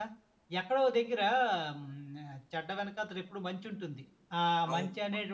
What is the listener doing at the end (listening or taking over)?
listening